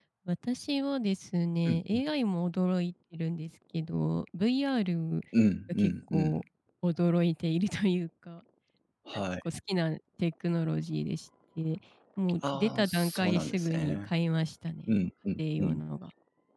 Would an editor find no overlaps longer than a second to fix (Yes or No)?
No